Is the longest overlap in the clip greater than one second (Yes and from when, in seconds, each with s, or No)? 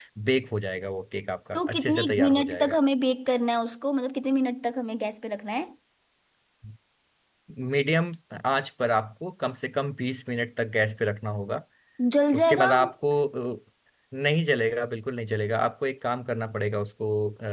Yes, from 1.5 s